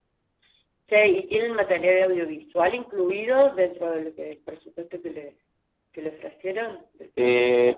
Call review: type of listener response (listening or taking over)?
taking over